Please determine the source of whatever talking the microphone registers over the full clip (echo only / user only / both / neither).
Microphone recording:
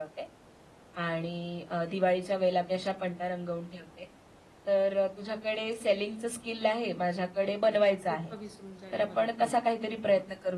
both